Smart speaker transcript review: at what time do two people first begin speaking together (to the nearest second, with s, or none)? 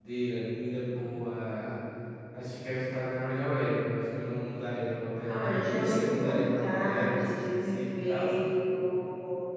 5 s